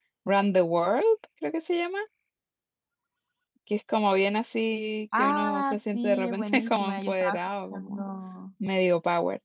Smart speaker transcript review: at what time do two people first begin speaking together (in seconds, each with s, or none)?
5.1 s